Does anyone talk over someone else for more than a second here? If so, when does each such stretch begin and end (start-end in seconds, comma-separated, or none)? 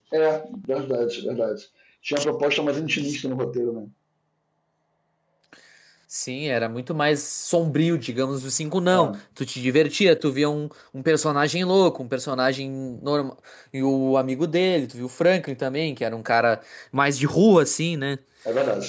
none